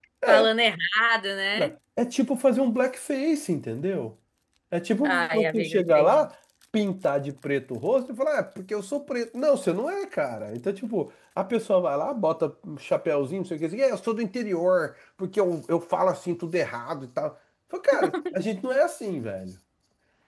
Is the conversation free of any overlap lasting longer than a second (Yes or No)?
No